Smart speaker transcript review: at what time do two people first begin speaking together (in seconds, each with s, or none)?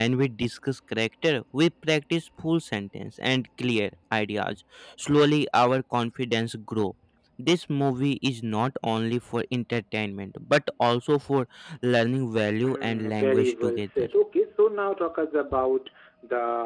12.6 s